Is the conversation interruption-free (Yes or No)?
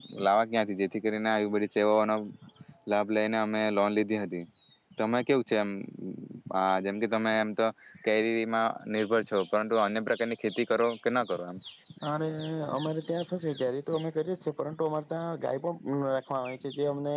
Yes